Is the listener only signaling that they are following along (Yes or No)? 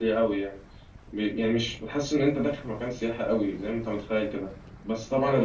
Yes